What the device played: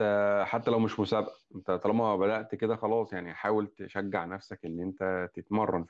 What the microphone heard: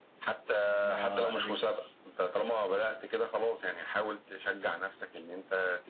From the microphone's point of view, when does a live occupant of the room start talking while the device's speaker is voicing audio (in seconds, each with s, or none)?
0.8 s